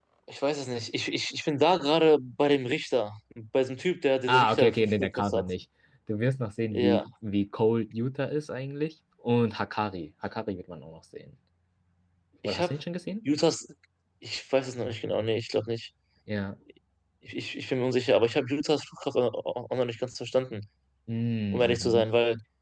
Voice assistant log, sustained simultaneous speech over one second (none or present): present